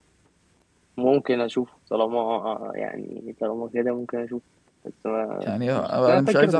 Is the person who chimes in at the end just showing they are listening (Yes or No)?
No